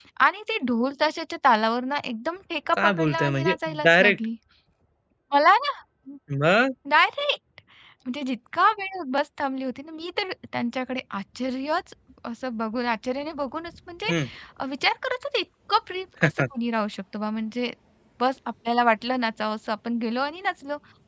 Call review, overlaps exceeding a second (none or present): present